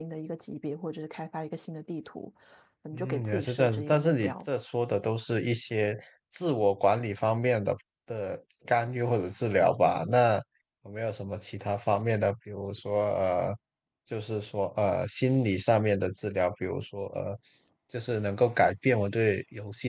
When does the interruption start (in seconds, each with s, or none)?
2.9 s